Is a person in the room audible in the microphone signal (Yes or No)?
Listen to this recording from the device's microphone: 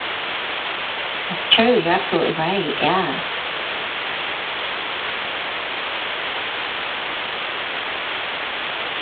Yes